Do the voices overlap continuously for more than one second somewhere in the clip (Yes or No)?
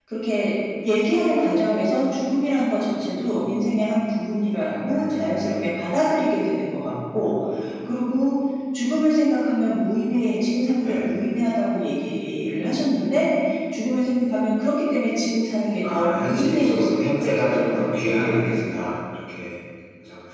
Yes